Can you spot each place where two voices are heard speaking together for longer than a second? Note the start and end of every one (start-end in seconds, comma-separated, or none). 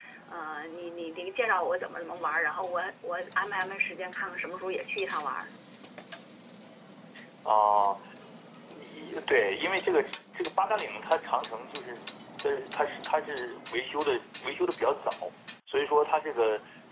none